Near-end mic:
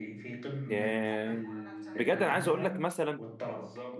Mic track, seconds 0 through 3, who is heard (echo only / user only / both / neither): both